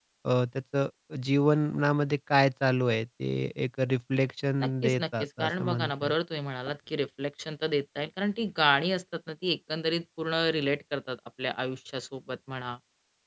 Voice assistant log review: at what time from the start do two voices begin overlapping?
4.6 s

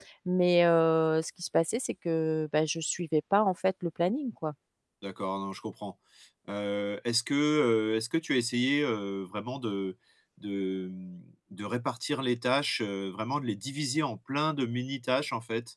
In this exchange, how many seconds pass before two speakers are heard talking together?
none

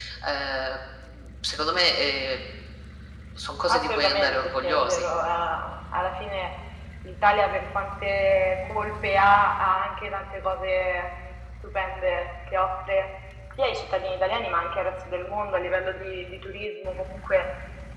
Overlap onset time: 3.7 s

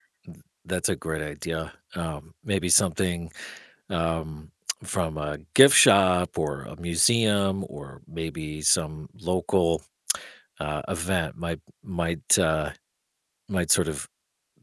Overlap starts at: none

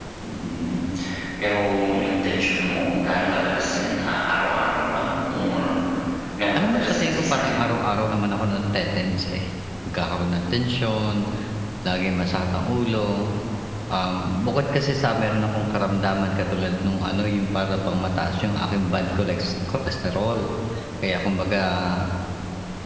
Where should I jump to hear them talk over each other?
6.6 s

